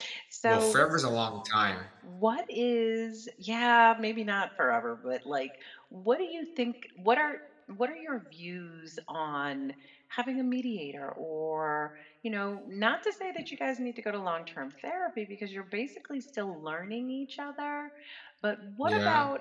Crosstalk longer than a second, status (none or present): none